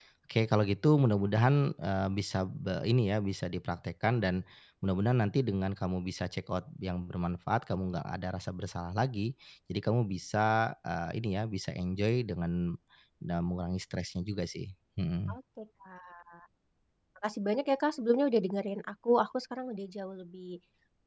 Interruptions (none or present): none